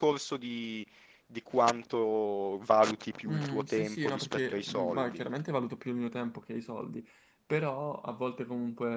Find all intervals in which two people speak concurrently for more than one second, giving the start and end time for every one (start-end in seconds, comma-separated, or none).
3.3-5.2